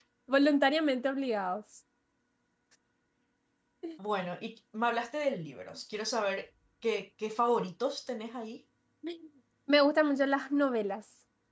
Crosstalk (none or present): none